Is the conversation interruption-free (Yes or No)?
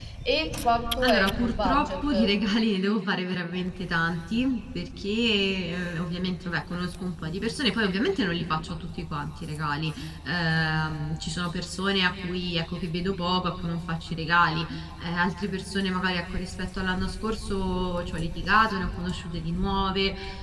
No